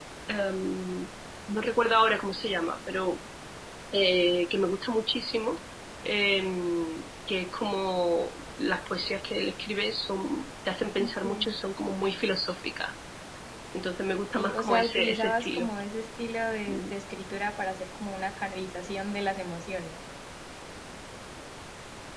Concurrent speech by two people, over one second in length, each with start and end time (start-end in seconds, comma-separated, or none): 14.3-15.7